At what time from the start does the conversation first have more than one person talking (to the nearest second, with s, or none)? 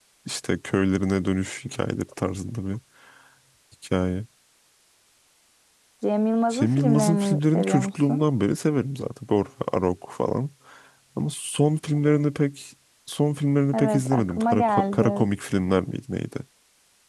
7 s